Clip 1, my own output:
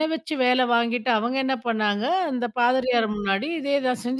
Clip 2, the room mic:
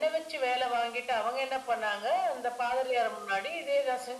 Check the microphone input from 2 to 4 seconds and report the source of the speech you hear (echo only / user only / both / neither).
echo only